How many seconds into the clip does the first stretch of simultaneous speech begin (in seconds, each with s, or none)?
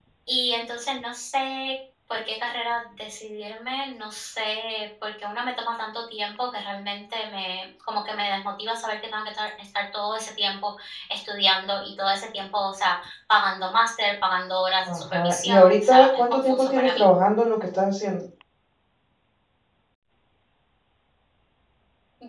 14.8 s